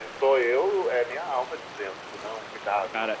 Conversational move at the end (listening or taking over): taking over